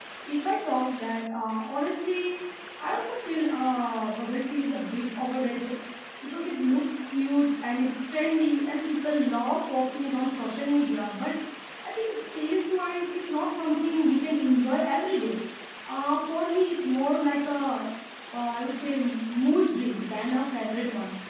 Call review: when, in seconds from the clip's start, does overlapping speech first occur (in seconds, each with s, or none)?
none